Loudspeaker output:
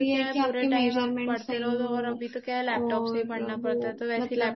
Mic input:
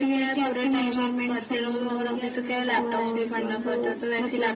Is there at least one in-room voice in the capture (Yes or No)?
Yes